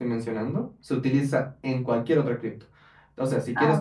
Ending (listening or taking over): listening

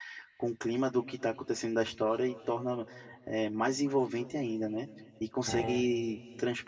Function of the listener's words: listening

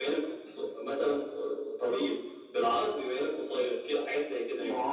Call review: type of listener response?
taking over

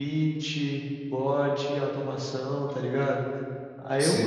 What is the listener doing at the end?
listening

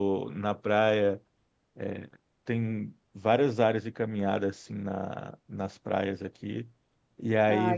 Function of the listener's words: listening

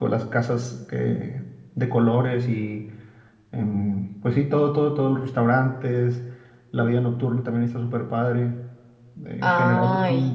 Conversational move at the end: listening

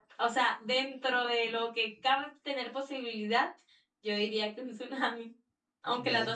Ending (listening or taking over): taking over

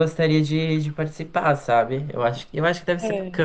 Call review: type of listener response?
listening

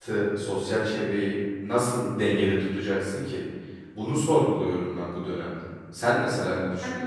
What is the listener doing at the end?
taking over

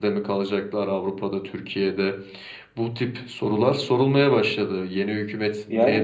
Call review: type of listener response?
taking over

